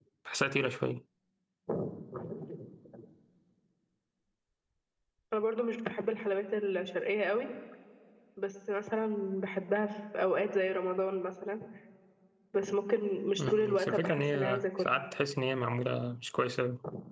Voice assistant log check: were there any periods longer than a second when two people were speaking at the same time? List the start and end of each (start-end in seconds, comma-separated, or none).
13.4-14.9